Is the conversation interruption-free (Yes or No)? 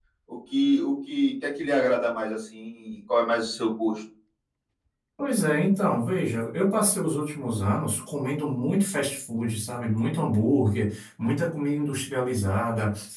Yes